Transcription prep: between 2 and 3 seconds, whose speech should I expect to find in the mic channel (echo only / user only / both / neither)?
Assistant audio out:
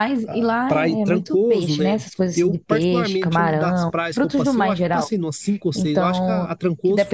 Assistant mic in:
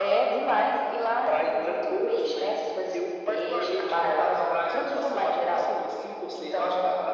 echo only